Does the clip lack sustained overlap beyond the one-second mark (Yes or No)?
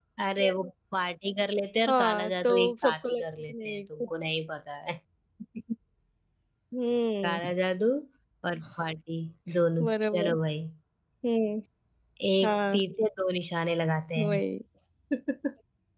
No